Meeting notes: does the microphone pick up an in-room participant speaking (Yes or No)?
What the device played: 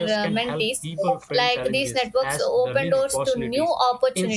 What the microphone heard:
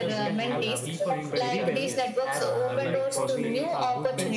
Yes